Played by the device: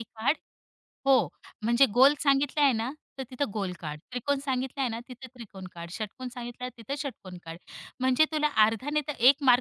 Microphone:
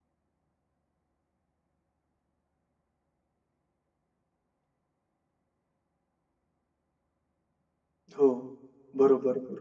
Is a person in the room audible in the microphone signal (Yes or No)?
Yes